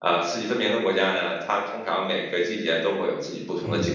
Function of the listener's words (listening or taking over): taking over